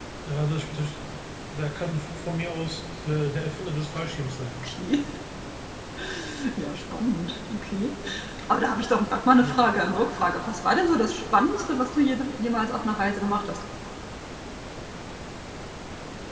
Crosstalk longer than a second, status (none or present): none